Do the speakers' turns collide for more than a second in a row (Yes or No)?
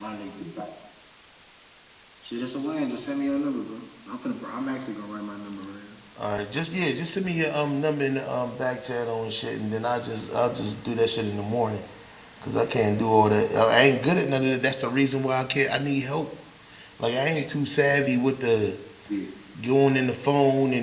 No